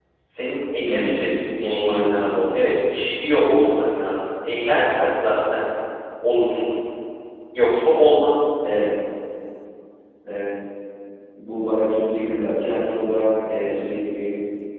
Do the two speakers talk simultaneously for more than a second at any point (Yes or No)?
Yes